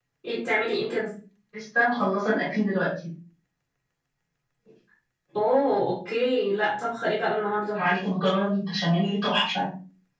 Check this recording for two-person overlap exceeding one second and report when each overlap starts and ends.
none

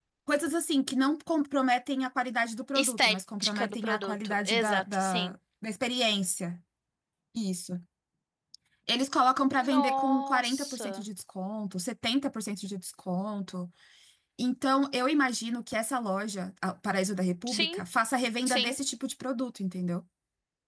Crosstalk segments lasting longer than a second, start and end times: 2.7-5.3, 9.7-11.0

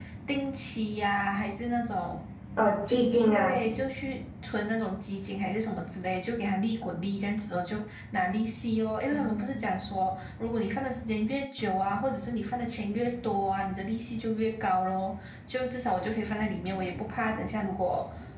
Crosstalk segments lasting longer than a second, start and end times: none

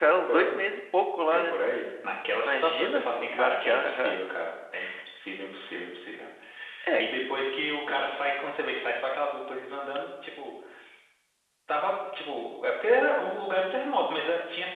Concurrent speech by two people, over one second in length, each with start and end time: 2.4-4.2

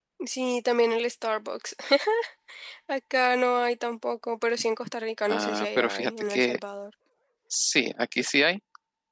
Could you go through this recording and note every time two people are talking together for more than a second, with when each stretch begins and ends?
5.3-6.6

